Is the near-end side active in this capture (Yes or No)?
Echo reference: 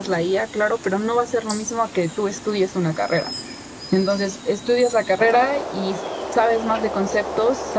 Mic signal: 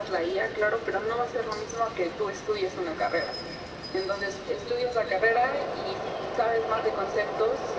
No